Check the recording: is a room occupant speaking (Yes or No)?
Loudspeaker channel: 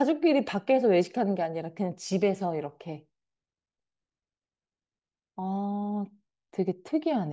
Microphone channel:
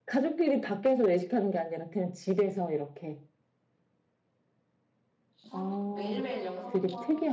Yes